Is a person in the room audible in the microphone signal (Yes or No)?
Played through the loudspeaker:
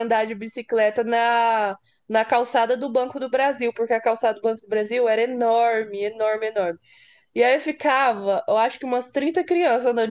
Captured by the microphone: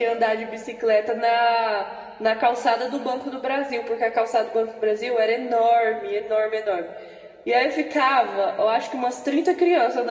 No